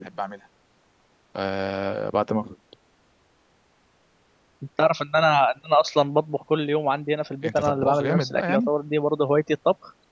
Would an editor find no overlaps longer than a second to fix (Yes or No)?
No